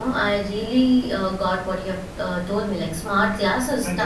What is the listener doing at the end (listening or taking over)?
listening